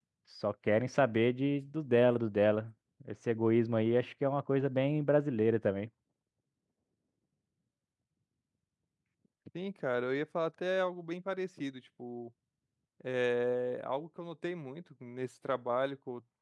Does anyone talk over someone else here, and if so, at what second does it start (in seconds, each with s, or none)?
none